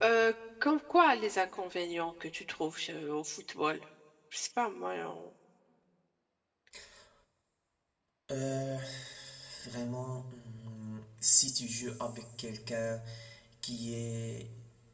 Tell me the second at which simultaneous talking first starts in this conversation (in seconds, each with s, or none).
none